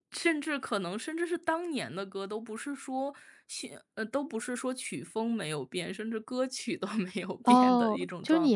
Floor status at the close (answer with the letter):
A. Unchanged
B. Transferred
B